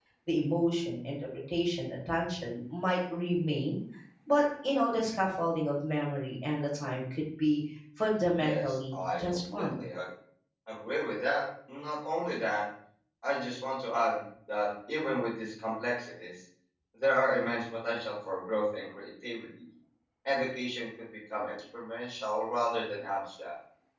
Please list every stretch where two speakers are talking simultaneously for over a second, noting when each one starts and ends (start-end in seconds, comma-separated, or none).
8.4-9.7